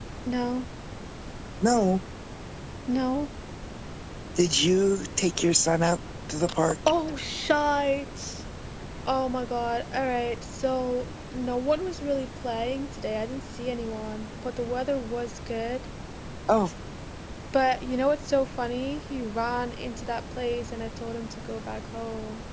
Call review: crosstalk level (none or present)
none